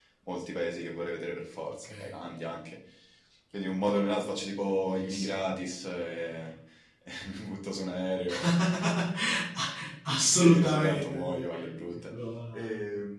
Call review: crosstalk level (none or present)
present